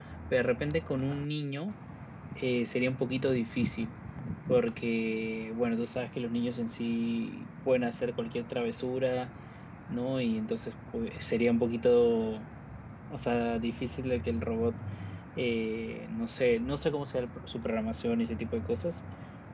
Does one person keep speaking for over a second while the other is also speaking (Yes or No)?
No